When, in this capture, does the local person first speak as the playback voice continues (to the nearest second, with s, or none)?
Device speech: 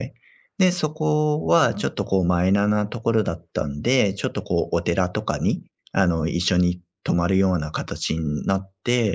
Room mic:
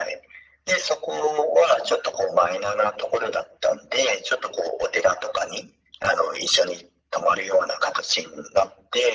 none